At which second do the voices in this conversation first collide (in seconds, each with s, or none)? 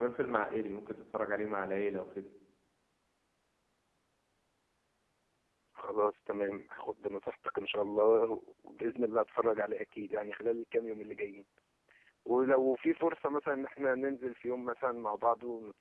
none